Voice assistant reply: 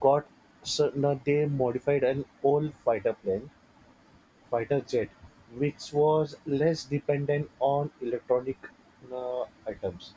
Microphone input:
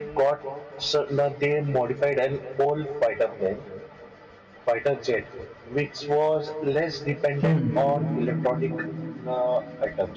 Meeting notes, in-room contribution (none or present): present